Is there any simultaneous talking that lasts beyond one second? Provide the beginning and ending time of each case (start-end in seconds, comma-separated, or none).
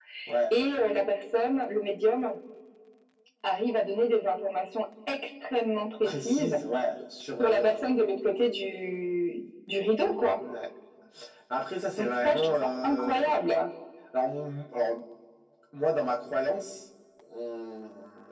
12.0-13.3